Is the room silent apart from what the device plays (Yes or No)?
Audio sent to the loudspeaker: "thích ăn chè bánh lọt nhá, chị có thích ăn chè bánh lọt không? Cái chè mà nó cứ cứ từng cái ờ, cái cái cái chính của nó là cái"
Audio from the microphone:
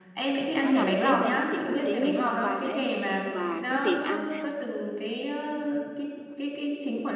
No